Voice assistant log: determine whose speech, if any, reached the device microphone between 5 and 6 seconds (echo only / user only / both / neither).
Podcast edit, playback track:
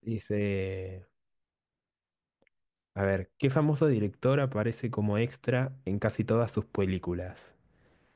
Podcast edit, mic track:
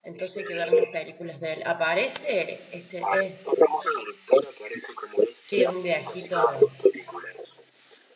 both